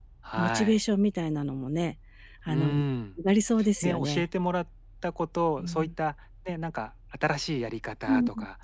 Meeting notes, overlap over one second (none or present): none